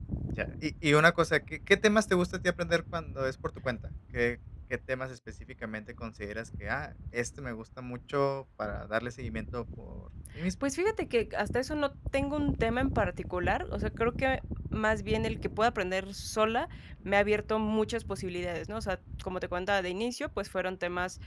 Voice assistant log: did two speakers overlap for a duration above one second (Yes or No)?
No